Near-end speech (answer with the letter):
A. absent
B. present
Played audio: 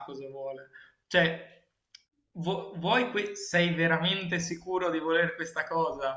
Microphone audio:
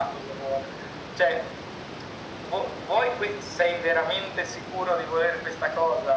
A